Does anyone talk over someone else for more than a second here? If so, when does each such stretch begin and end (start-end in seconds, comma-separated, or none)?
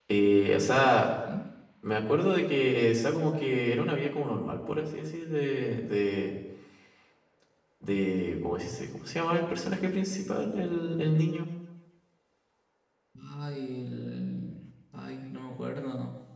none